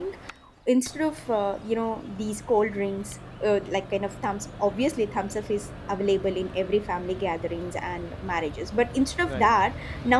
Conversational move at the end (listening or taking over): listening